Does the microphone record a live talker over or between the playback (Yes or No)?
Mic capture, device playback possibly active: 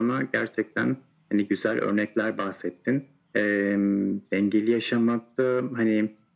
No